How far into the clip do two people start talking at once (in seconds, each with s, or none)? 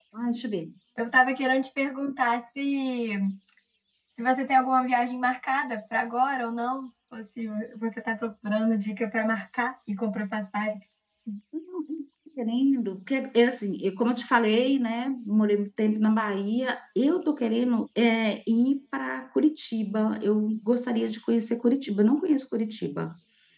none